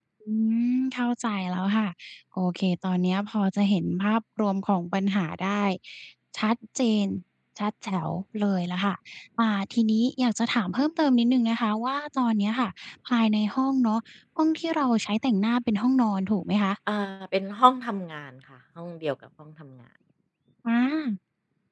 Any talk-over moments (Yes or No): No